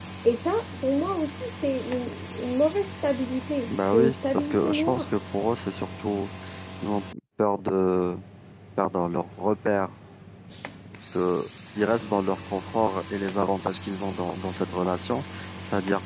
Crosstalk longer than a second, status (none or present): present